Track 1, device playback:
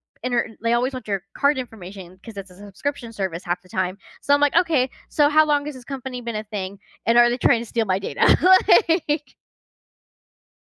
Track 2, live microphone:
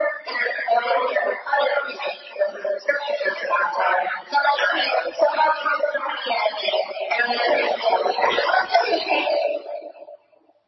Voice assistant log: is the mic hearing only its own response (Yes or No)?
Yes